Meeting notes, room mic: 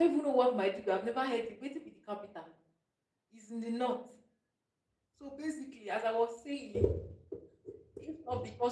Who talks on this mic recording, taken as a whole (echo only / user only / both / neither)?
user only